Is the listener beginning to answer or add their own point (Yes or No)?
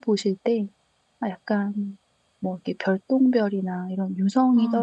No